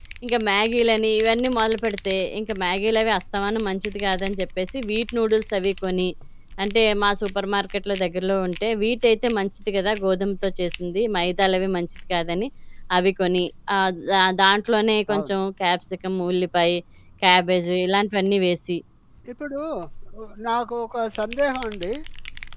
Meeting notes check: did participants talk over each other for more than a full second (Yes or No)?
No